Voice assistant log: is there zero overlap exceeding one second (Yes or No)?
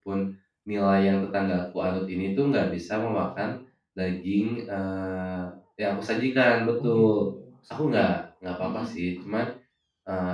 Yes